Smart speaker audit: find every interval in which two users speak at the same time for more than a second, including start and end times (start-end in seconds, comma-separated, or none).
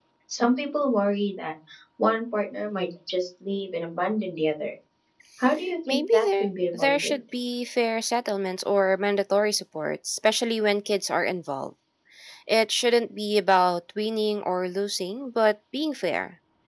5.9-7.2